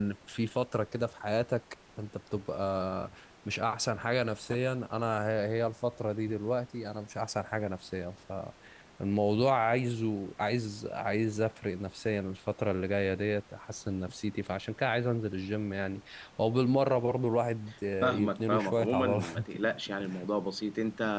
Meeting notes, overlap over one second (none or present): present